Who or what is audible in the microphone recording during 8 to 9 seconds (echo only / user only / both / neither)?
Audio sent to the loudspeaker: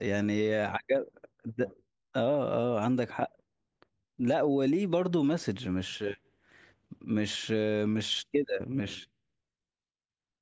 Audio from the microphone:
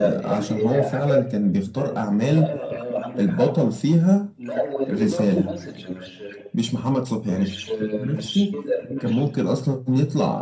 both